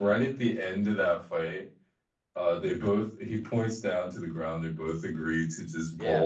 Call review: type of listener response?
listening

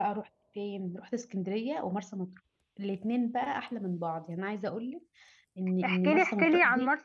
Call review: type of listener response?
taking over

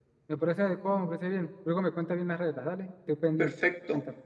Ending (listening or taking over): taking over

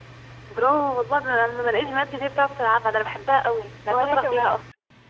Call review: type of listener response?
taking over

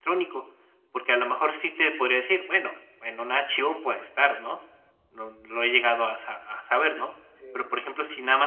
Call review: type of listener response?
listening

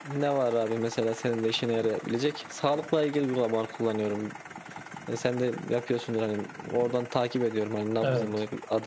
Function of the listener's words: listening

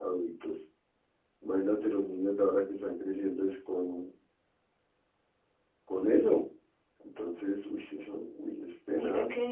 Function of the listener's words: taking over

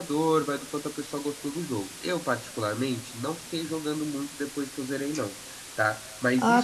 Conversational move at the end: taking over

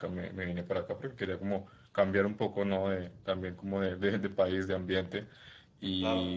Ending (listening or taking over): listening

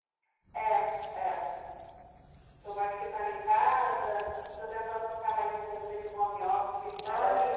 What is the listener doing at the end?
taking over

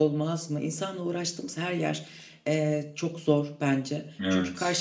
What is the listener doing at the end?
listening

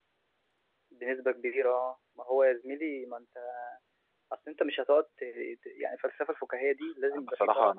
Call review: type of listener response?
taking over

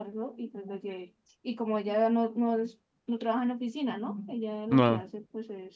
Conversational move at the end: listening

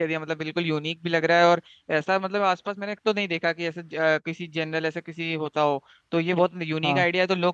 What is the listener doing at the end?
listening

